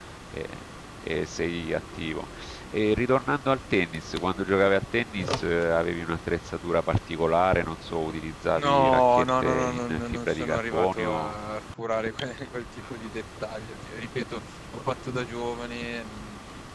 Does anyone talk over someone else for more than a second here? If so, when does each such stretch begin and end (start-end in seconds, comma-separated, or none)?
8.6-11.3